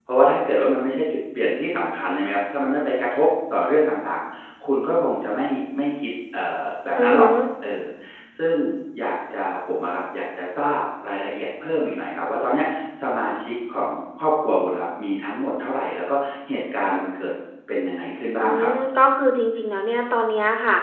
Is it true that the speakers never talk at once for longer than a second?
Yes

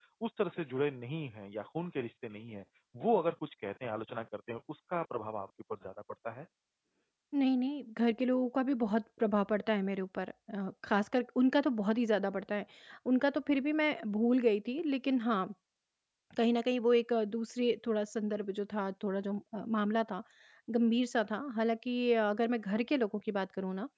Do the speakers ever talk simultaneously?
No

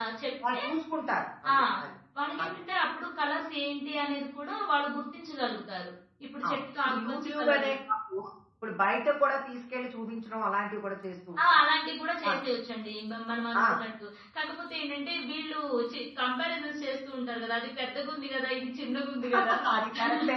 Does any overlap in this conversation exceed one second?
Yes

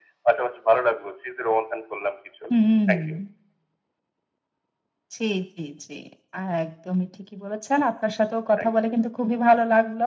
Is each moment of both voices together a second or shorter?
Yes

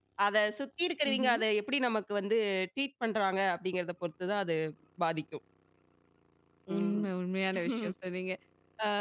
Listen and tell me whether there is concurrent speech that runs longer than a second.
No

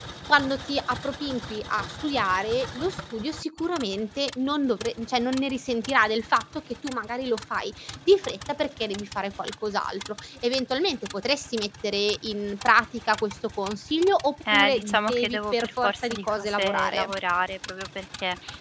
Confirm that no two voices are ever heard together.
No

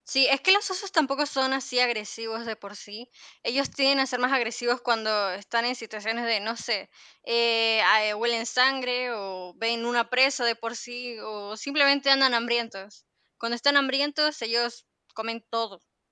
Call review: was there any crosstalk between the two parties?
No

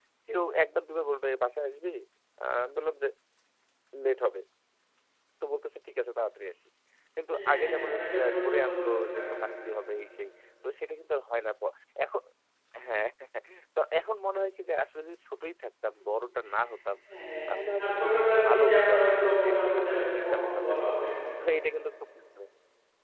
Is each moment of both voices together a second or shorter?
No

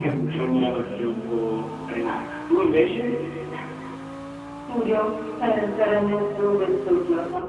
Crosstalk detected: No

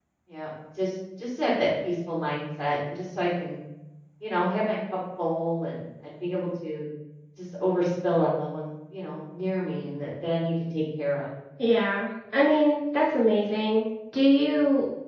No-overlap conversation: Yes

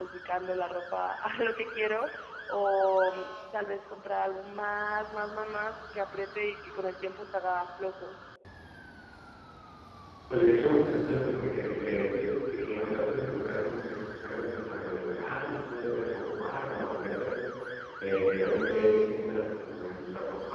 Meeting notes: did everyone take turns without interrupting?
Yes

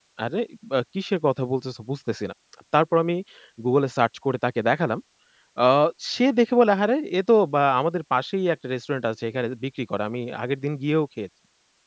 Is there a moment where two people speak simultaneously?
No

